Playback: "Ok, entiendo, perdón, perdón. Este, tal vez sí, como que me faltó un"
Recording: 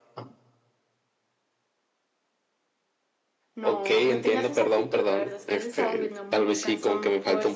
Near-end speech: present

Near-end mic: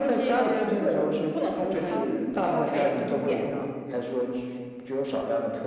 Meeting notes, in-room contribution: present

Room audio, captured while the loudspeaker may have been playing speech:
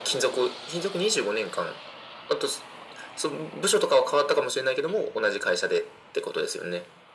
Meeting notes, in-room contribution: none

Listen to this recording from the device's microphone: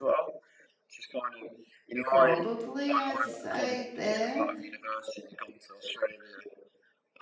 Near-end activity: present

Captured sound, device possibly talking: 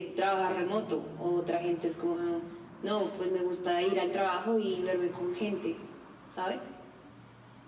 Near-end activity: none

